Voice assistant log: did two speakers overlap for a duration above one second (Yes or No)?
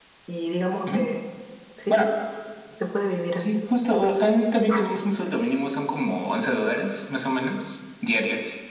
No